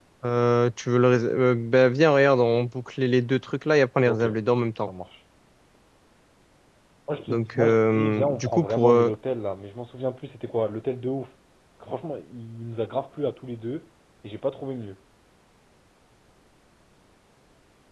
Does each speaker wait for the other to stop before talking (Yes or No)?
No